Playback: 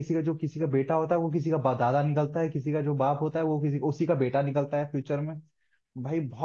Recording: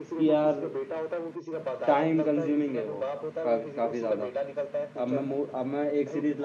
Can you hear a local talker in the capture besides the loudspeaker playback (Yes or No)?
Yes